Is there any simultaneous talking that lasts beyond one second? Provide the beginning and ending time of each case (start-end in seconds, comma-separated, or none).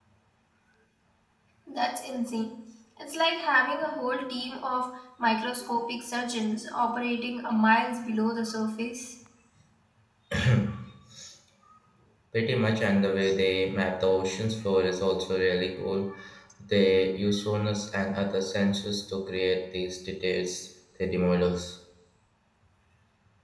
none